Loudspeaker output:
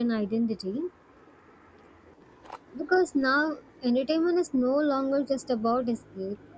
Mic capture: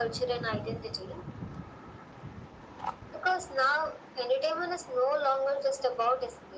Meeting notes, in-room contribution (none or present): none